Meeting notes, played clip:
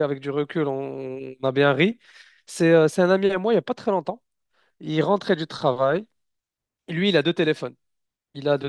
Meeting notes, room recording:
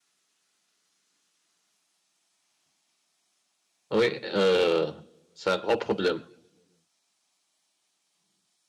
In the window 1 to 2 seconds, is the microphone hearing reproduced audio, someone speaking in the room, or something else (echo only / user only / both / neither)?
neither